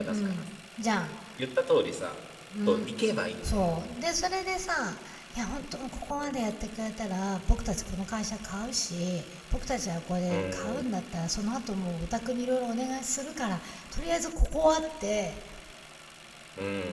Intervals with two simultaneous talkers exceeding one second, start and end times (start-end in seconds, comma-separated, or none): none